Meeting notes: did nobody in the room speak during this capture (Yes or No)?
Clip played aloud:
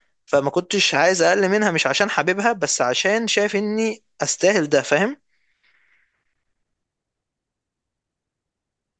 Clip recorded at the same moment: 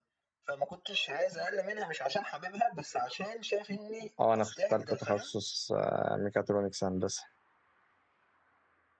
No